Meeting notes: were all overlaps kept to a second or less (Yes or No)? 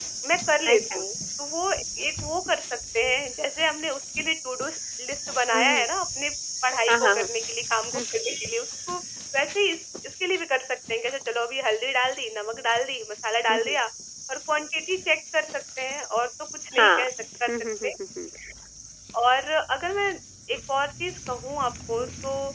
Yes